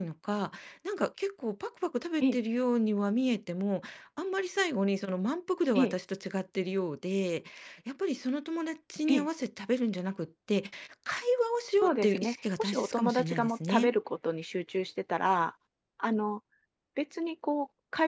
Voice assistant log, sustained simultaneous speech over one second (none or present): present